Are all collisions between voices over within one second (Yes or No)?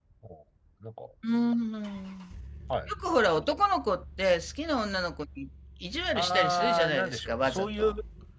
No